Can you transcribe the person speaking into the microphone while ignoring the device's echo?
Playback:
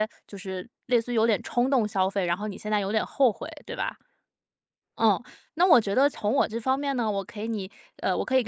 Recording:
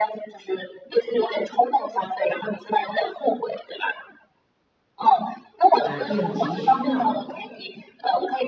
呃，应急需要。

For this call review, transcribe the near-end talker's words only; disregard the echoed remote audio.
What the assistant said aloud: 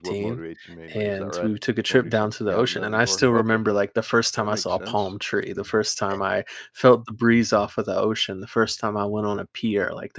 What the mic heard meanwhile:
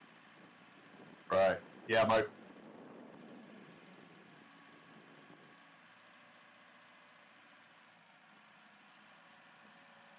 right. Yeah, my

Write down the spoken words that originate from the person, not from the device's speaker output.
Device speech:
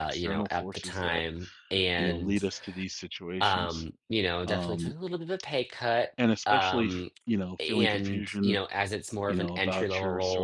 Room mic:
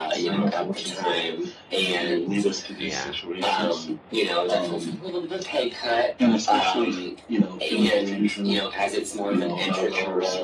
Yeah,

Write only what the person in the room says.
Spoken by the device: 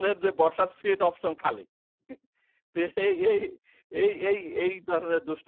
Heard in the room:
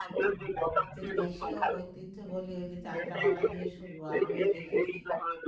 যে দেশীয় ঐতিহ্য বলি ওই যে যাত্রাপালা দিয়ে শুরু আমিও দেখেছি।

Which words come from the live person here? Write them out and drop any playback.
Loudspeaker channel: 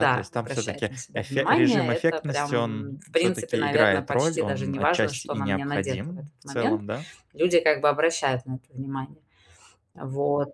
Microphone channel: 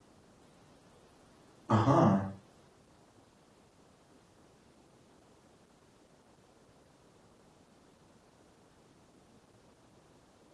Ага,

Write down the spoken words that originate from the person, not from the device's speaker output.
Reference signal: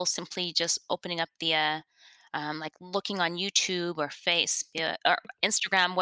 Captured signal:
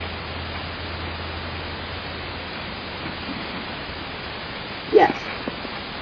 yes.

